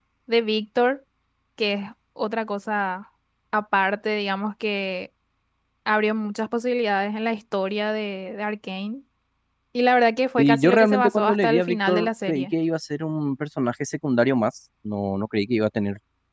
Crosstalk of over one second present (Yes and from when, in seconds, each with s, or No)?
Yes, from 10.4 s